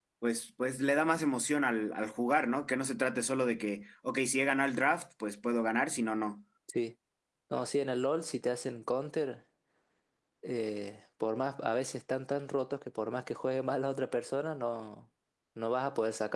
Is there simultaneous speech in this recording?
No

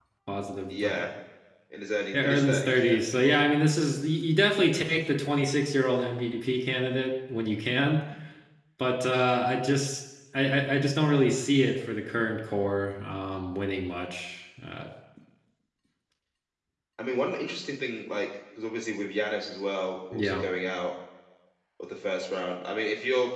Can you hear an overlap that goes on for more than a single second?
Yes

